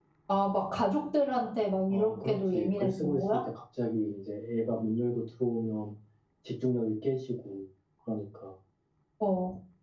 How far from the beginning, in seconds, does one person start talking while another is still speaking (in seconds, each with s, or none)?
1.9 s